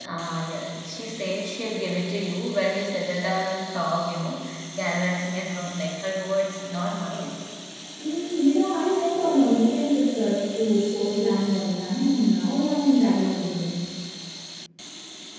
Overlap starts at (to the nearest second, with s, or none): none